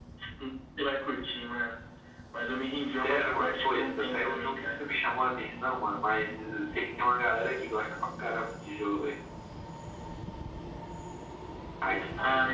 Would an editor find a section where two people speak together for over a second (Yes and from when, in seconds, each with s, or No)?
Yes, from 2.9 s